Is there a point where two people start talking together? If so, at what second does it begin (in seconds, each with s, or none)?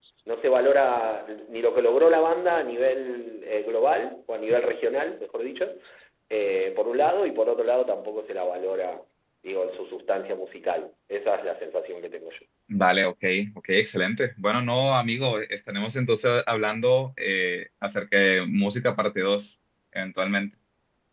none